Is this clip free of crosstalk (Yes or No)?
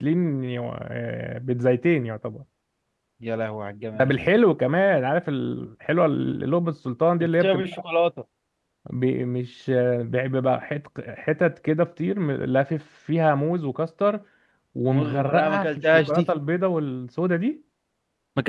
No